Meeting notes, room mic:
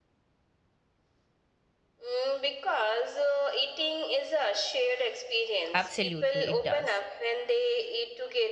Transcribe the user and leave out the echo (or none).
Absolutely, it does.